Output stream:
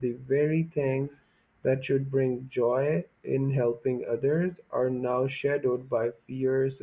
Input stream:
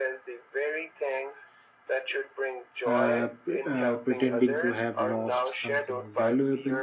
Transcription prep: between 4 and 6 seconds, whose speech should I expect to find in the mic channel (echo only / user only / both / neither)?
both